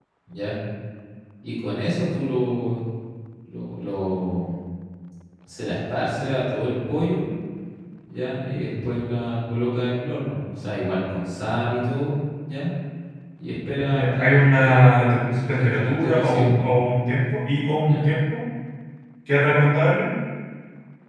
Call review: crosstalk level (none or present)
present